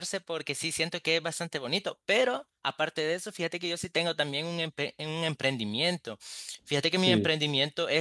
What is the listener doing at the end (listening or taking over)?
listening